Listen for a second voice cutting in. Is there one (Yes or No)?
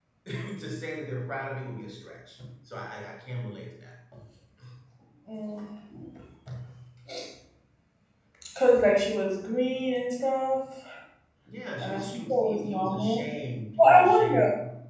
Yes